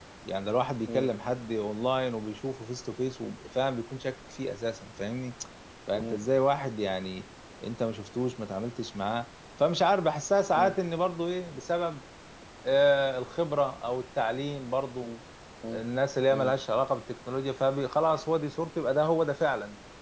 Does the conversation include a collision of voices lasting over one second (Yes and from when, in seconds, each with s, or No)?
No